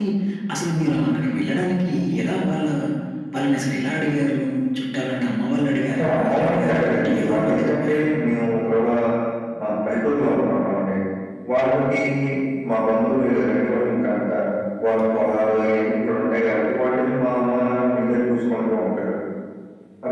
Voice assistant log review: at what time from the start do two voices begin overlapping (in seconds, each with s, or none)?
5.9 s